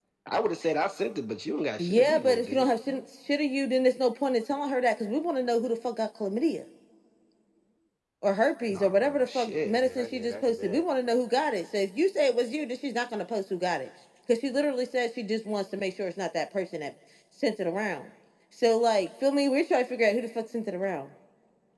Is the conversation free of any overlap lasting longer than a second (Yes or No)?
No